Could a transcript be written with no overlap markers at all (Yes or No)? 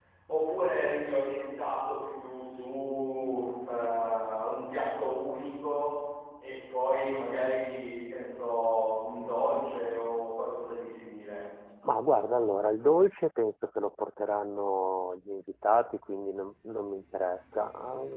Yes